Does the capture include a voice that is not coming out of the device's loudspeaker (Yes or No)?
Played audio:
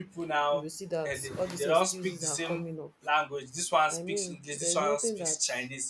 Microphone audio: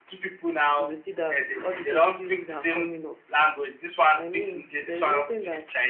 No